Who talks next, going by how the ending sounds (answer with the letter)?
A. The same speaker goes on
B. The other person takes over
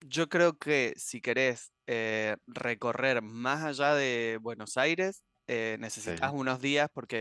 A